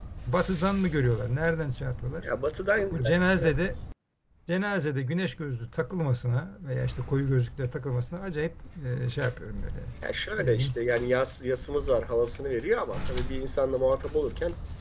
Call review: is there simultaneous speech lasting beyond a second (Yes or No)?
No